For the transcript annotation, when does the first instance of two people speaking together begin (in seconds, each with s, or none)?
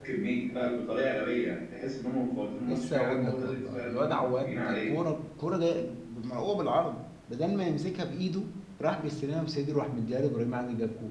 2.6 s